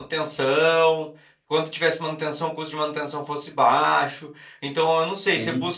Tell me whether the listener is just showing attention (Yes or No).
Yes